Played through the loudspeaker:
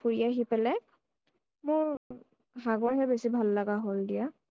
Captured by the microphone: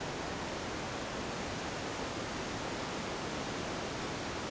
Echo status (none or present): none